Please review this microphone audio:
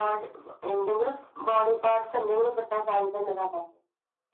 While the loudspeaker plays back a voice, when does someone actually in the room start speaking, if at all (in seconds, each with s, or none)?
none